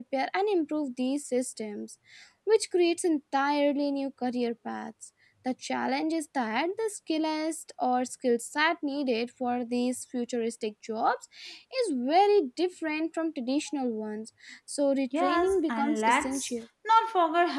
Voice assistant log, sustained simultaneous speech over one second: present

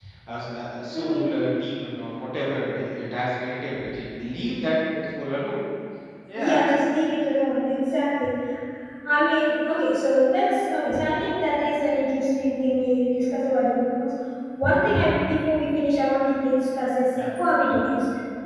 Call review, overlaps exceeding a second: none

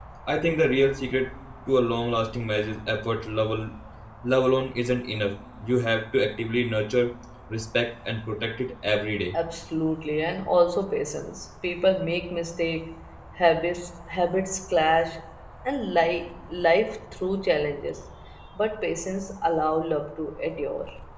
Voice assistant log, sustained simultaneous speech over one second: none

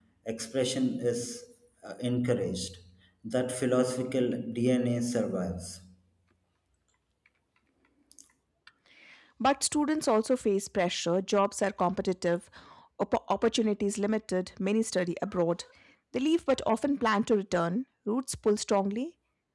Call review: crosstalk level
none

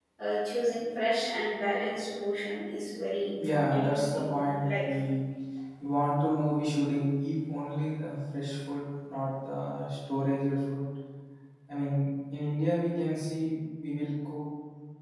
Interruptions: present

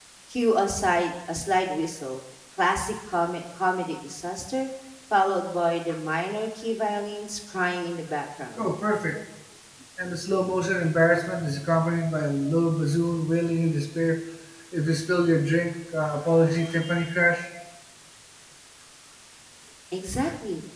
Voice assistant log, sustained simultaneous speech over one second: none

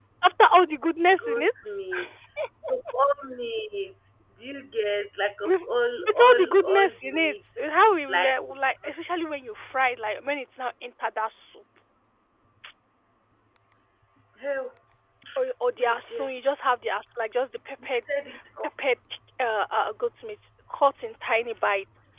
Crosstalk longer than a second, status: present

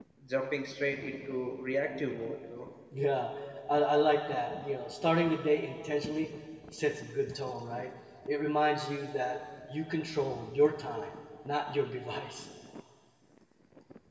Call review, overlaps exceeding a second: none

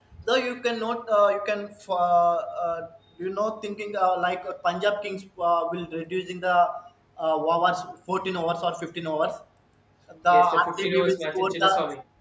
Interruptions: present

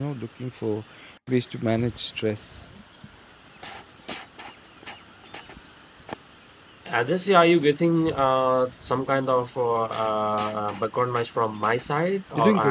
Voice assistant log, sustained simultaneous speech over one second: none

